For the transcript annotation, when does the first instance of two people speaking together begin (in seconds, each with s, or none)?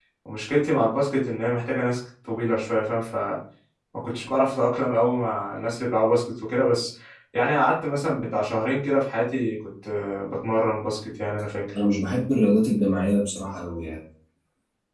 none